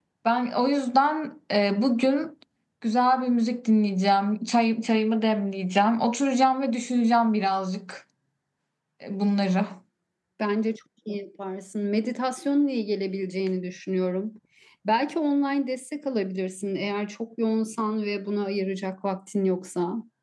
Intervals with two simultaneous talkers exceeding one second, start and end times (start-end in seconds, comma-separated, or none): none